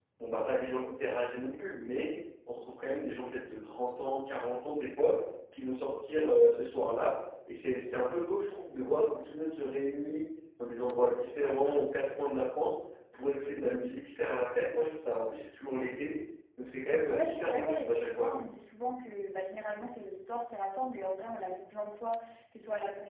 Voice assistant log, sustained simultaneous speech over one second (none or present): present